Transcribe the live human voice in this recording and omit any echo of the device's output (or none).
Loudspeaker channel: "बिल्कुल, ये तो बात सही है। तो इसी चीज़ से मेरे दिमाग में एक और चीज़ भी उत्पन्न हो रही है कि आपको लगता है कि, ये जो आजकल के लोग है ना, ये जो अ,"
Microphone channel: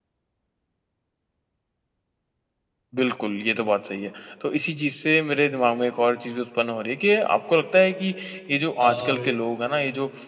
और